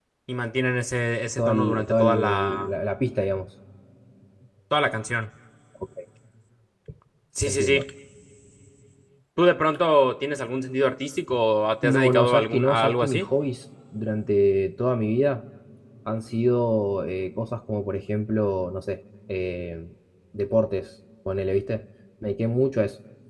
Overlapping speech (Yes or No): Yes